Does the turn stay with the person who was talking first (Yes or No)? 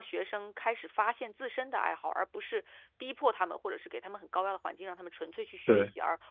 Yes